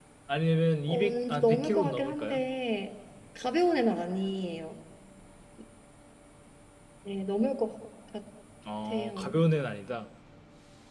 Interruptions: present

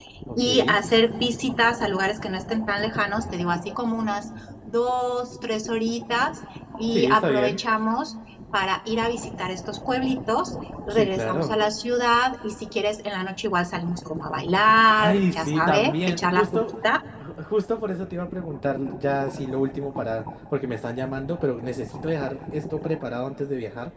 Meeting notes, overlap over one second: present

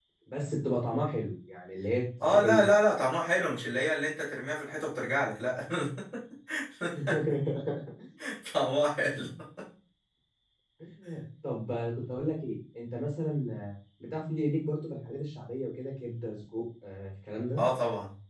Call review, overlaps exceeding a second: none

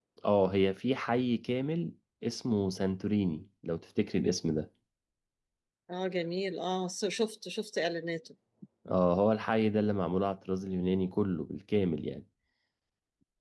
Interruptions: none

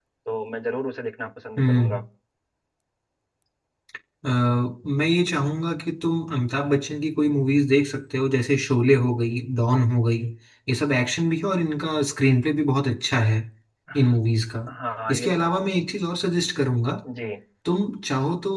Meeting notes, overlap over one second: none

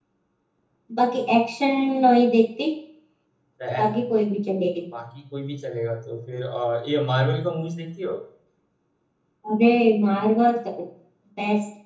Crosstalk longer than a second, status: none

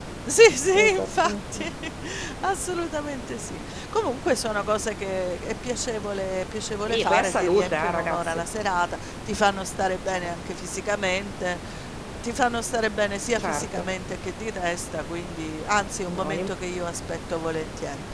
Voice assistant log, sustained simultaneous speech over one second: present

